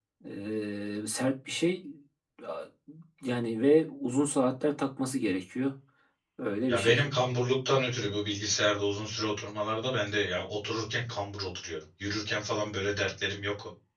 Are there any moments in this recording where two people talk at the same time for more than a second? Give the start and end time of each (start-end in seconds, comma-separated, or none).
none